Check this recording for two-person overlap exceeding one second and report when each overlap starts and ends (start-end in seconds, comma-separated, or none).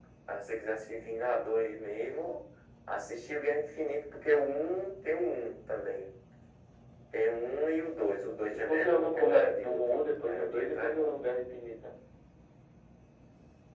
8.5-11.1